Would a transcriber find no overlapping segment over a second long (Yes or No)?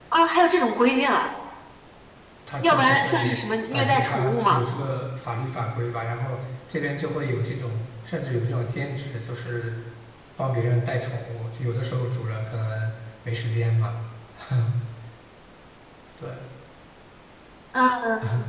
No